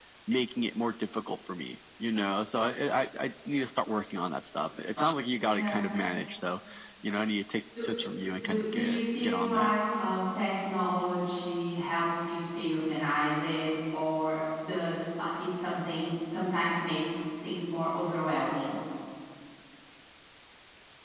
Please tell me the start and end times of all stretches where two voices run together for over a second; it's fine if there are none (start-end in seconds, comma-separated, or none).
8.4-9.7